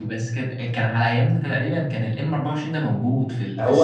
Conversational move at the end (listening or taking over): taking over